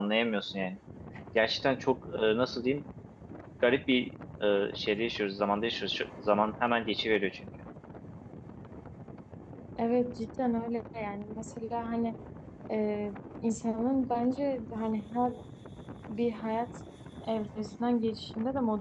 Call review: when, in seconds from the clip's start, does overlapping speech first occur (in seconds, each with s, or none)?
none